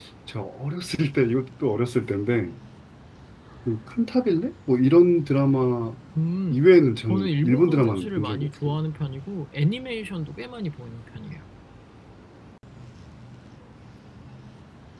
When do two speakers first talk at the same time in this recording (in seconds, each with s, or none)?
7.1 s